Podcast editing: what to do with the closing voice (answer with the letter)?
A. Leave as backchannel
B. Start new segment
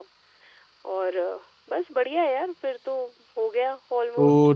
B